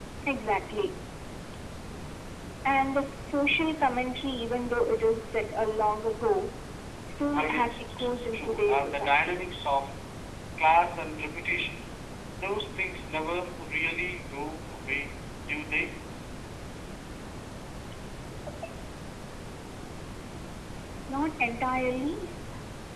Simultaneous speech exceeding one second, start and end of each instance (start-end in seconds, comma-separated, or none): 7.3-9.4